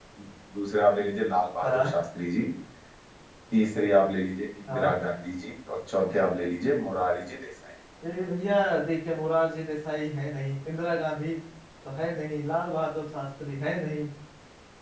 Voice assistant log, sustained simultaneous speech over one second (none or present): none